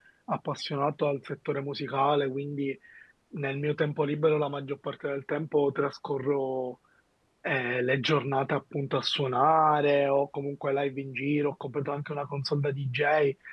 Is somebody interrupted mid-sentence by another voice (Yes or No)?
No